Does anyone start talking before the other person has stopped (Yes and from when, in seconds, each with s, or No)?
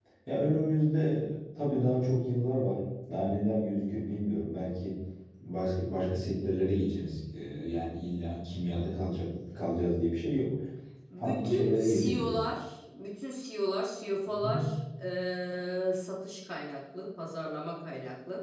Yes, from 11.2 s